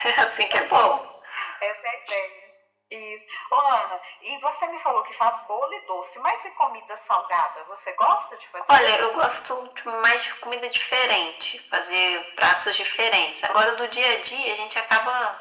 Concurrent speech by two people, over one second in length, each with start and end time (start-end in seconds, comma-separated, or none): none